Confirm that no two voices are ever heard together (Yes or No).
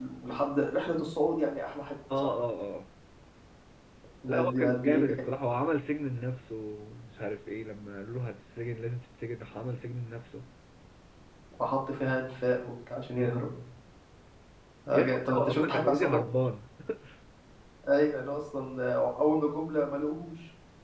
No